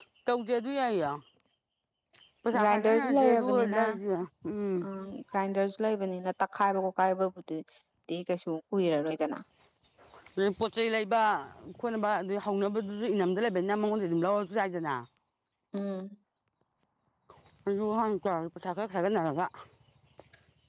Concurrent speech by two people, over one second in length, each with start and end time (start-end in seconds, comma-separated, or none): 2.6-3.8